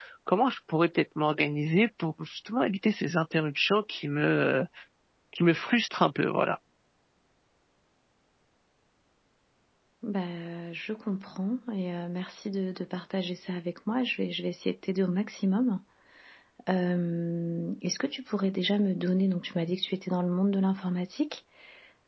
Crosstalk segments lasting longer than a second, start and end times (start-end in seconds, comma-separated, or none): none